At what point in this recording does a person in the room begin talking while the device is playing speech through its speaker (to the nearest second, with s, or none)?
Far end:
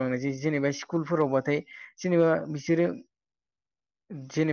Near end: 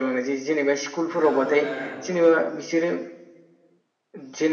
1 s